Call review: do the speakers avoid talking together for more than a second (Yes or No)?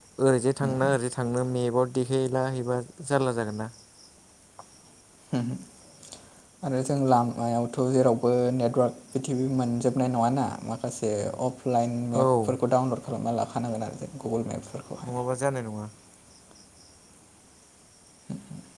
Yes